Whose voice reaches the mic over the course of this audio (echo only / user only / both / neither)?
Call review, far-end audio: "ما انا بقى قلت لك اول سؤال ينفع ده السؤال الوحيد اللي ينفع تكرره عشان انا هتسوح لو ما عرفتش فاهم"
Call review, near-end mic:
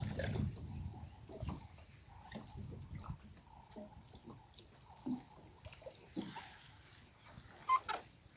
neither